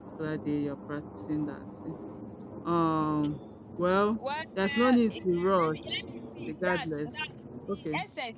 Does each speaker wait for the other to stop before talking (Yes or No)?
No